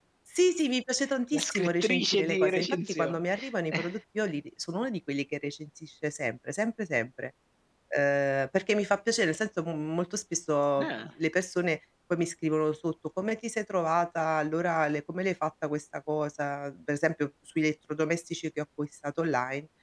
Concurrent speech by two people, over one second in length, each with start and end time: 1.3-3.2

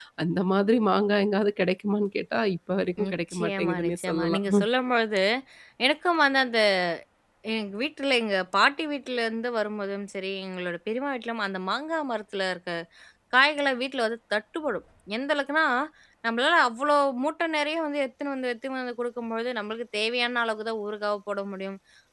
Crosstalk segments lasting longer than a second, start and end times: 3.1-4.5

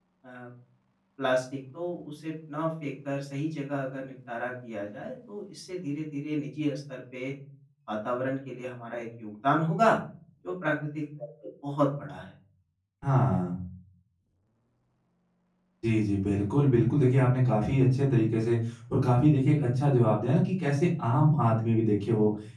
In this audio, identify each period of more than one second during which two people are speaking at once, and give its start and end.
none

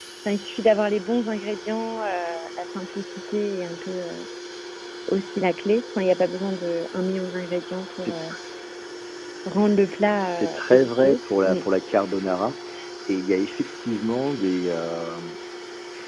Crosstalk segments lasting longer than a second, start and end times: 10.2-11.6

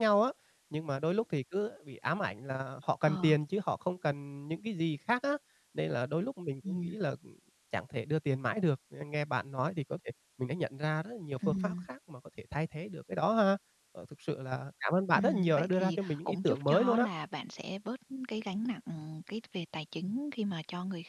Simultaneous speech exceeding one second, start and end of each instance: 15.1-17.1

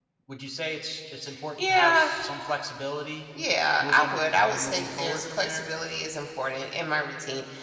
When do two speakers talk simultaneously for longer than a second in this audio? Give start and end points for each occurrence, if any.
3.8-5.7

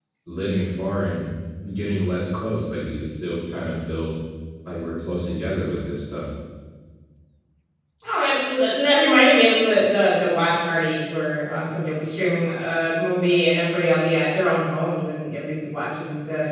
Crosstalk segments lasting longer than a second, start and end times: none

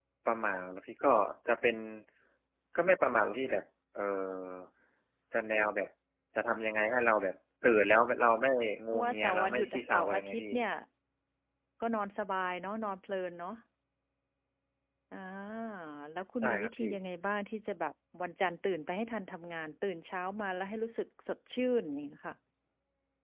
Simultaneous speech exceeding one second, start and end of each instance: 8.9-10.5

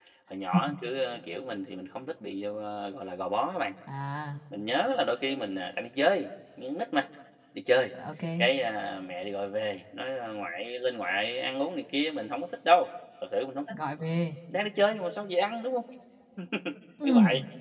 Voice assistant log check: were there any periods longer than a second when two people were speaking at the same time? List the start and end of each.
none

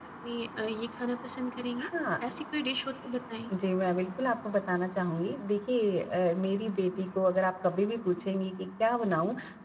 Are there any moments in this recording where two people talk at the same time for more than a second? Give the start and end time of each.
none

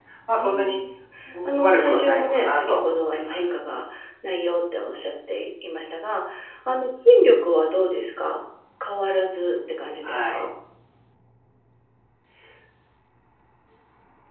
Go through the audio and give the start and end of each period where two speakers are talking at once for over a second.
1.4-3.5

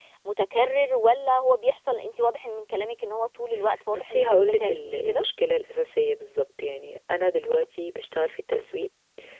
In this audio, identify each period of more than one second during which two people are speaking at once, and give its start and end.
3.9-5.2

